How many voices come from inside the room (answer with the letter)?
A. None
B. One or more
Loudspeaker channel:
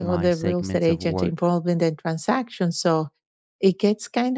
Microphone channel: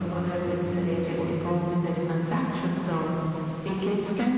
A